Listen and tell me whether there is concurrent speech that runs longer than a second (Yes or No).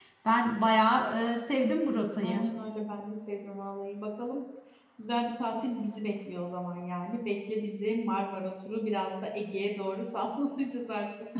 No